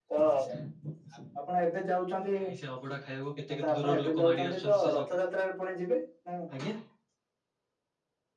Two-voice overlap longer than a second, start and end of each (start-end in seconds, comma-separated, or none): 3.6-5.1